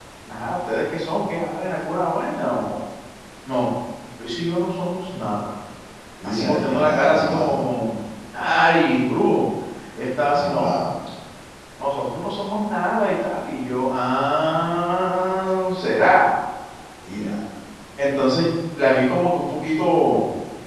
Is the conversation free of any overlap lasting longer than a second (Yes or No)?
No